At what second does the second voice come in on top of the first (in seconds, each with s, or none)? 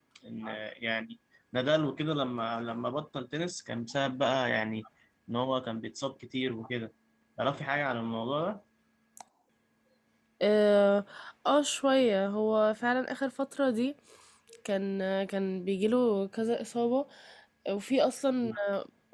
none